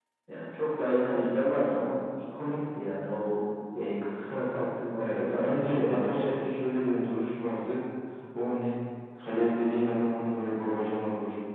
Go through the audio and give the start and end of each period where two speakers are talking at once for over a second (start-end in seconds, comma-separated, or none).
5.0-6.3